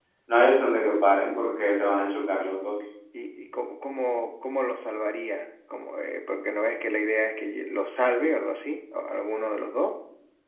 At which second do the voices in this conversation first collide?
none

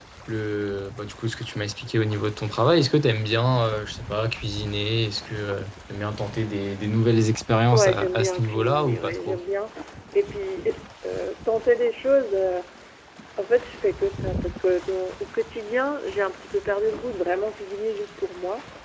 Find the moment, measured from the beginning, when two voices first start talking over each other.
7.7 s

